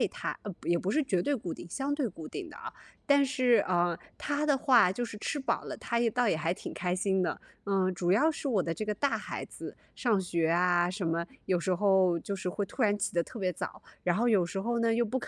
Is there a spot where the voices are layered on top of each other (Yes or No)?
No